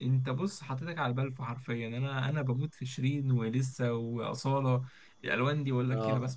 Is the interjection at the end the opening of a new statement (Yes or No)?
Yes